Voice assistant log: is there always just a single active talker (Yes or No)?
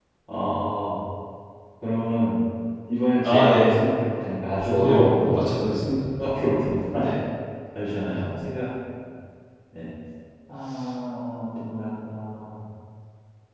No